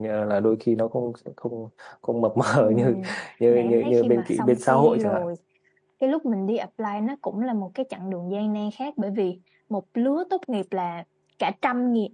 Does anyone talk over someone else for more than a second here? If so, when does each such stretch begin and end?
3.5-5.3

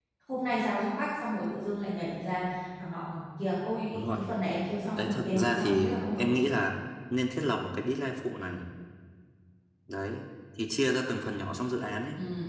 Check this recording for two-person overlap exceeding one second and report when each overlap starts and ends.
5.0-6.4

